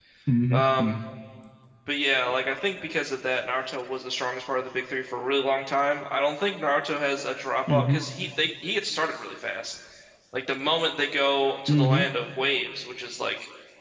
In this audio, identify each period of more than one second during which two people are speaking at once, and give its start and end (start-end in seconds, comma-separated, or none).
none